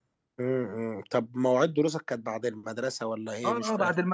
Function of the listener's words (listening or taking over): taking over